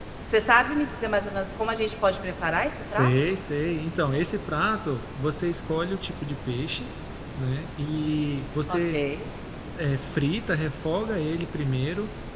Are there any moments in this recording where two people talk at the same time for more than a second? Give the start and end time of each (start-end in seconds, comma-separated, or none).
none